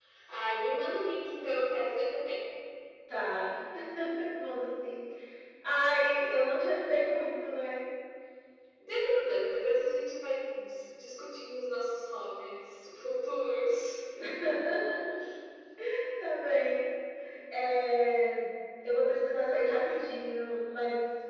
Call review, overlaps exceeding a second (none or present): none